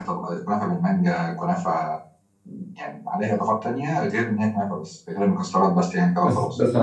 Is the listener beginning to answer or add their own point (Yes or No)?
Yes